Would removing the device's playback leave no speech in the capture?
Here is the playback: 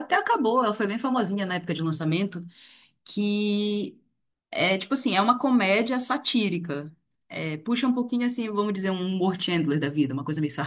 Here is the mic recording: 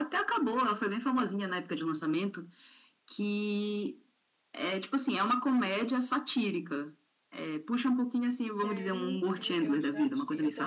No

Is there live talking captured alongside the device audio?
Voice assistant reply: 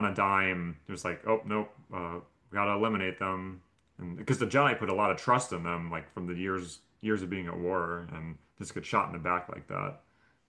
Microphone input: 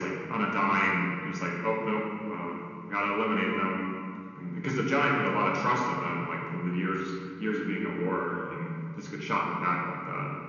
No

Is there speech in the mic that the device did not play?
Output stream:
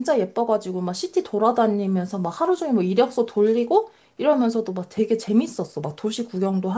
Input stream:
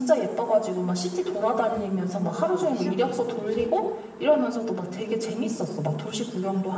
Yes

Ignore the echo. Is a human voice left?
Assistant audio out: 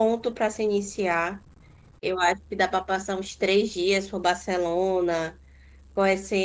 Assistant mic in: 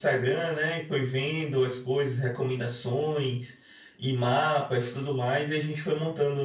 Yes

